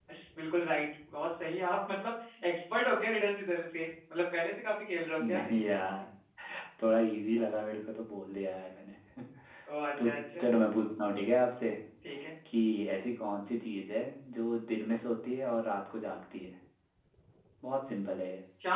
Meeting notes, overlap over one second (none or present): none